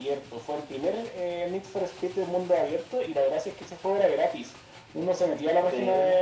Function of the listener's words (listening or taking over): listening